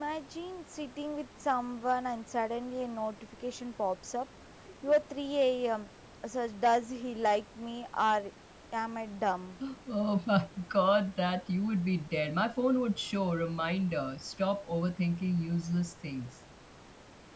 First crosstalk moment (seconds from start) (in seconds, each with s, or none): none